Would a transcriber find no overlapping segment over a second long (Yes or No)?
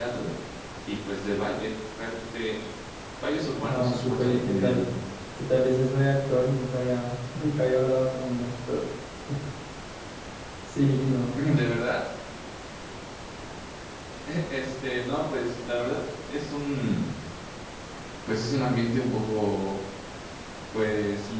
No